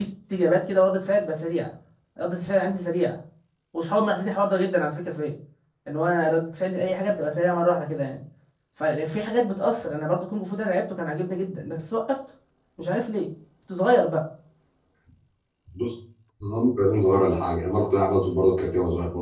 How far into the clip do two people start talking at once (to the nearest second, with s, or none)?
none